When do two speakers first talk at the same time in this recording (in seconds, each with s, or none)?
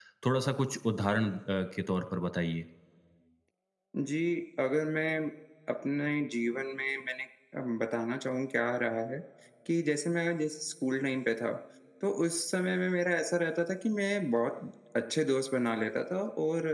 none